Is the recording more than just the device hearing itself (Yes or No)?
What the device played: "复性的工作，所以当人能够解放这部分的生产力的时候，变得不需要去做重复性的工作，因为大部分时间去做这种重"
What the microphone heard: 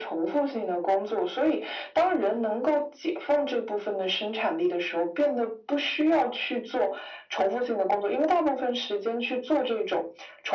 No